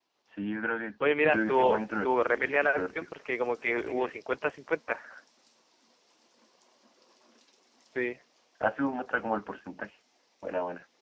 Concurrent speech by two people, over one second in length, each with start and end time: 1.0-3.1

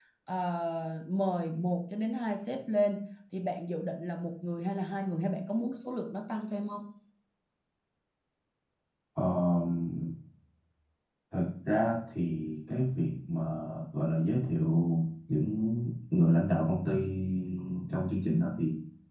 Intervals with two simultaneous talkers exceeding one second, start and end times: none

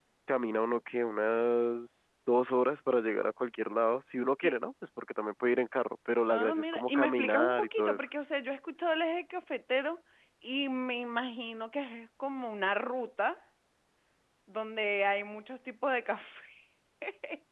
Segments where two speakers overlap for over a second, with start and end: 6.3-8.0

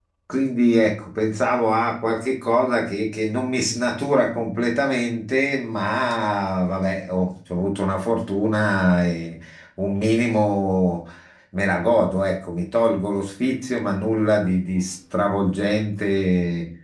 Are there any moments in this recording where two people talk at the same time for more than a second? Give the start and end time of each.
none

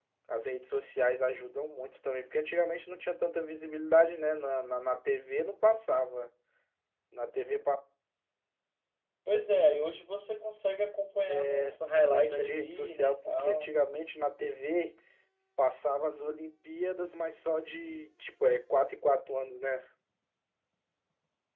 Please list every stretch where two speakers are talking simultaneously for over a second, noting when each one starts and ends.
12.1-13.8

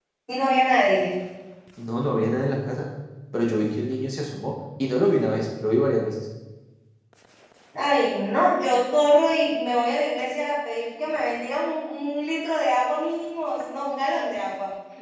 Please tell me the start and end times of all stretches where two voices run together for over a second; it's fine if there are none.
none

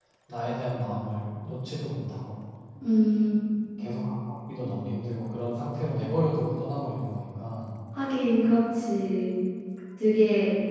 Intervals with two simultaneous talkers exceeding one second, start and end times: none

